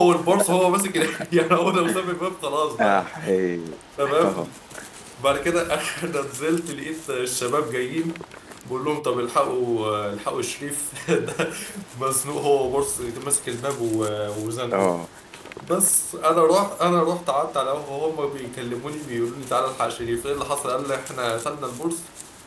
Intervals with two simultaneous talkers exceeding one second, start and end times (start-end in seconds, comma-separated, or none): none